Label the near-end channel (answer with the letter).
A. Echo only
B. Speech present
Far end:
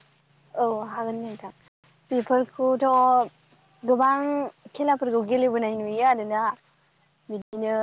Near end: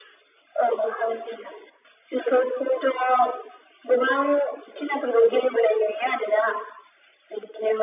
A